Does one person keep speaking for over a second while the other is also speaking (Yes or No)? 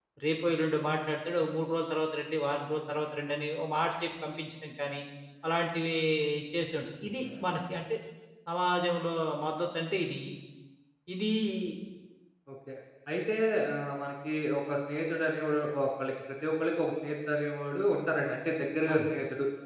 No